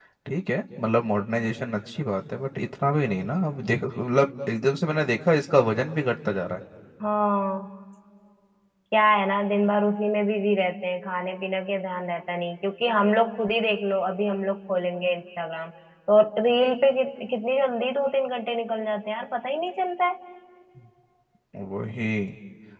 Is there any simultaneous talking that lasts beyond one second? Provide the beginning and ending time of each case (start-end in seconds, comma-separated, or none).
none